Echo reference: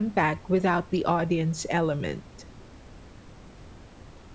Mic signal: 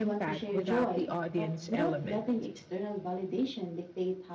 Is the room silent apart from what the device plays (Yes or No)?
No